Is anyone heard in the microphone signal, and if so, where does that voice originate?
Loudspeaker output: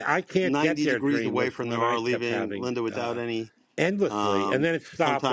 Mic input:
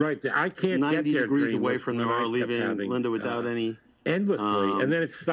echo only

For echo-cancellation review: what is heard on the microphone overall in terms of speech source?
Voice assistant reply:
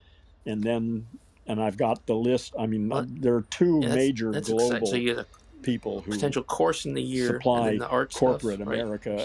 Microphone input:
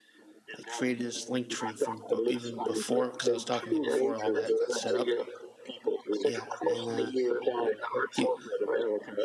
both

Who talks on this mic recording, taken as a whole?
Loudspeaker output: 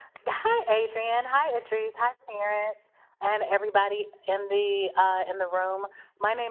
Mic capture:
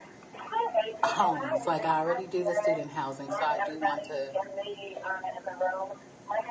both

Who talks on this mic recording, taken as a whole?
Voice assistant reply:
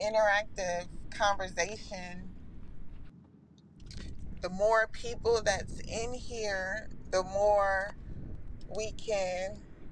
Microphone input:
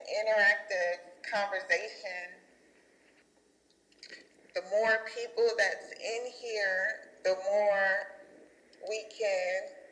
echo only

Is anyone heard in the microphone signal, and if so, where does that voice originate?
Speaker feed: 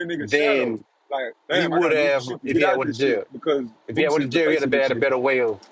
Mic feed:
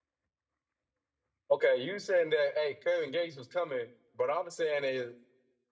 user only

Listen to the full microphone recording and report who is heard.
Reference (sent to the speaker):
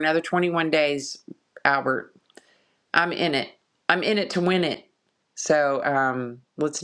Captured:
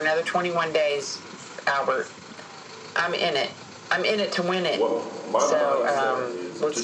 both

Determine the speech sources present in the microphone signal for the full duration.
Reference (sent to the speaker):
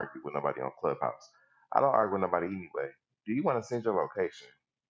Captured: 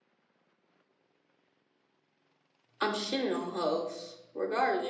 user only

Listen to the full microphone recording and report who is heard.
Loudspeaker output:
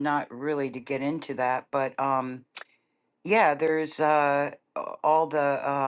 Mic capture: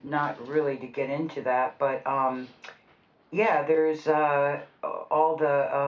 echo only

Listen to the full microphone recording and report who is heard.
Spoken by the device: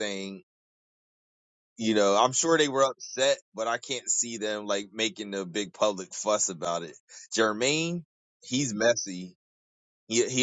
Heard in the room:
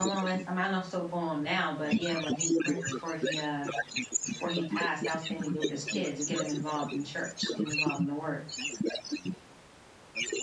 both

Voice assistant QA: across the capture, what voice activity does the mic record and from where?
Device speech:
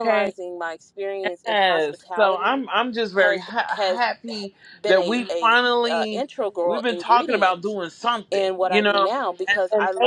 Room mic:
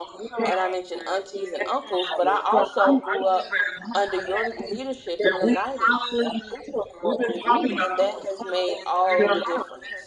both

